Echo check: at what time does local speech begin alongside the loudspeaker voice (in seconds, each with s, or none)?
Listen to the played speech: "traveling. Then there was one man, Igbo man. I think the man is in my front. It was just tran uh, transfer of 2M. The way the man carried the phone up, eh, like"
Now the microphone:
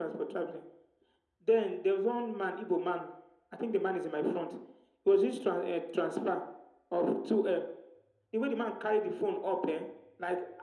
none